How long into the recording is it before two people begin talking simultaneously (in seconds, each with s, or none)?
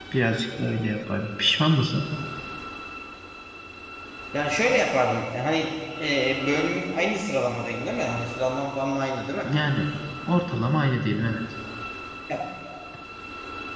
none